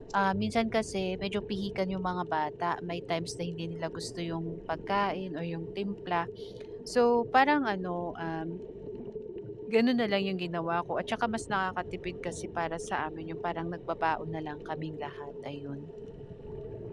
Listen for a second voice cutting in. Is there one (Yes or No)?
No